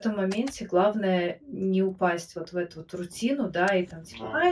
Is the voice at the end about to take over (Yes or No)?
No